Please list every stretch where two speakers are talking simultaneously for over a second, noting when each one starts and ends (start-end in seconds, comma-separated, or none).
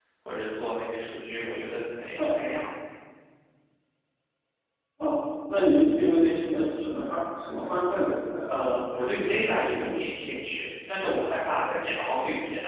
8.5-10.0